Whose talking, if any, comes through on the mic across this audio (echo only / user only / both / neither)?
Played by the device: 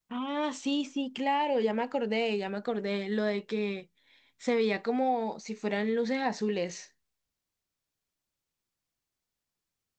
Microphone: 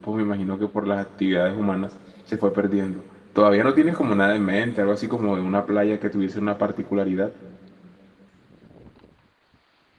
user only